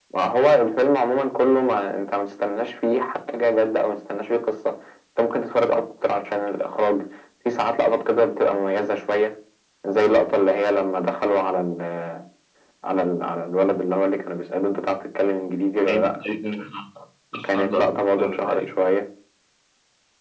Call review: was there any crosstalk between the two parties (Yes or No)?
Yes